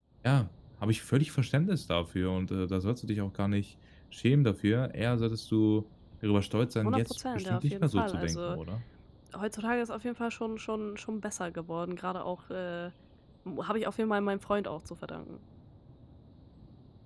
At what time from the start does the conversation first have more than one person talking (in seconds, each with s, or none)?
6.8 s